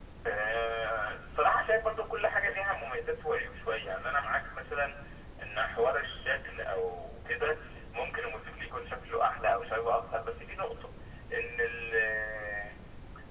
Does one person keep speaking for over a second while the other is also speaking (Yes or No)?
No